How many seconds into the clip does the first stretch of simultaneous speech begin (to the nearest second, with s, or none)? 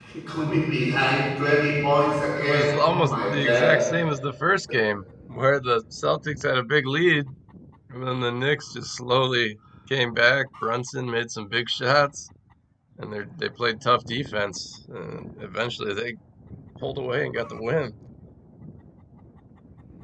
2 s